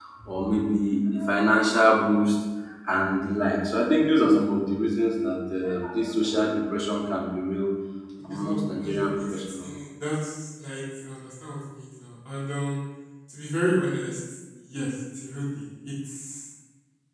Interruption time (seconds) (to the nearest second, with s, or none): 8 s